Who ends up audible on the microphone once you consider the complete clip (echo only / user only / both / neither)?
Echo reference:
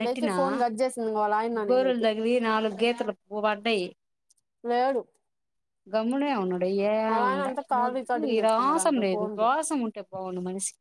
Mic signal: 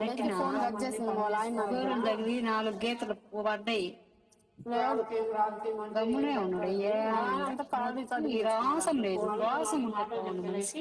both